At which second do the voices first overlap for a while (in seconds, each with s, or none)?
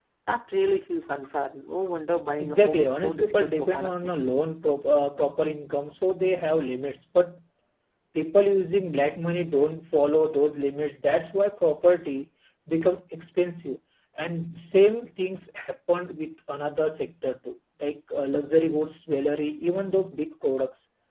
2.4 s